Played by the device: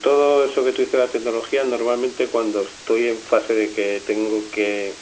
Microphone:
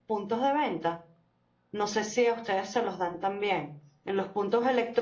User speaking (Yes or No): Yes